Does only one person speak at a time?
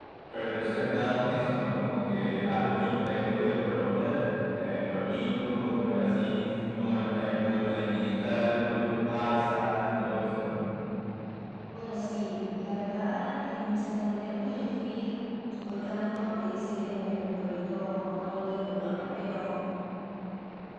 Yes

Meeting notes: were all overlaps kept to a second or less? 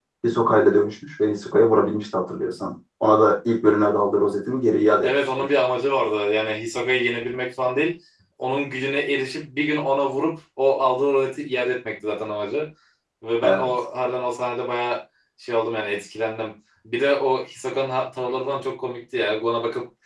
Yes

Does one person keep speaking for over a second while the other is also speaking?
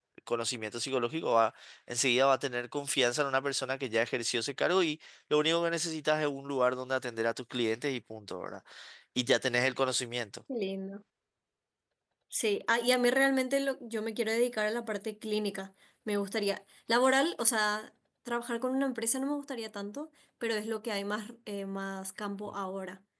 No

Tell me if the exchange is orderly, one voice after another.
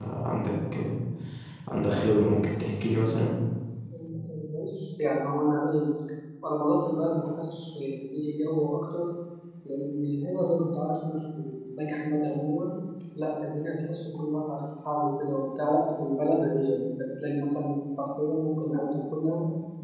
Yes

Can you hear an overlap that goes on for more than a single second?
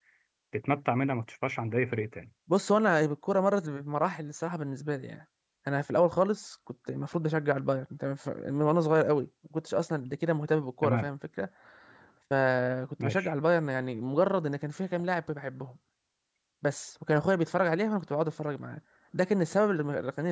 No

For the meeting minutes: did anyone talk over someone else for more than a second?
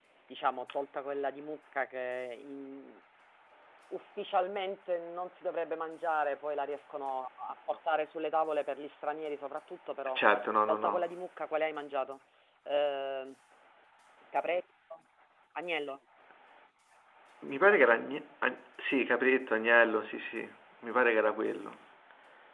No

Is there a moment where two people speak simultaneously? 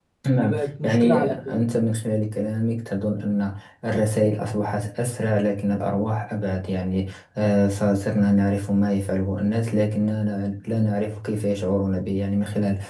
Yes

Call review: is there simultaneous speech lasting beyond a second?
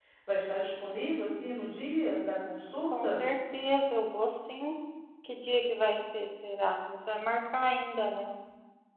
No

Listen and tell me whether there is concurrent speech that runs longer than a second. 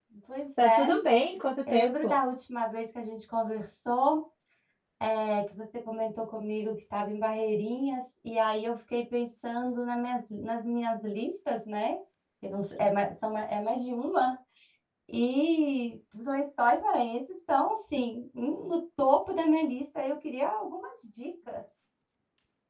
No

